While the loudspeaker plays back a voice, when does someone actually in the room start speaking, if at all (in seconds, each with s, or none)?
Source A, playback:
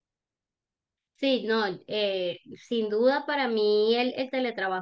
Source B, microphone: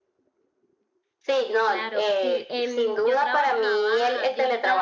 1.6 s